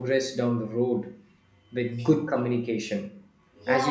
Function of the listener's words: taking over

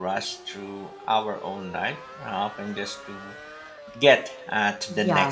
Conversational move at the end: taking over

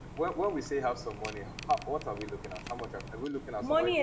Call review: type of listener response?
taking over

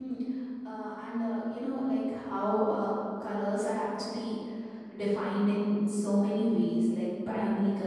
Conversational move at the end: listening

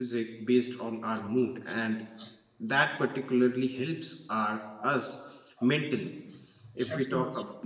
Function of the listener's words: listening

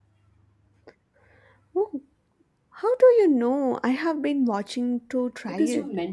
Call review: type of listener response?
taking over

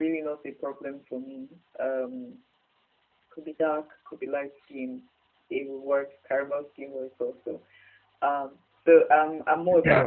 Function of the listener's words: taking over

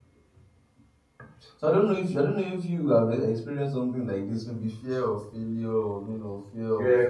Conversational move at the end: taking over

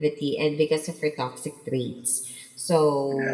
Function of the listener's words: listening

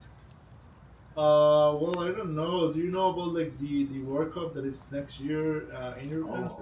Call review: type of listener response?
taking over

